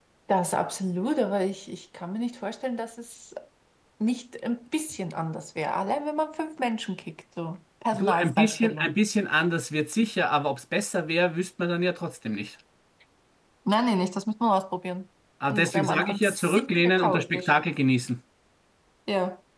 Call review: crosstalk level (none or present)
present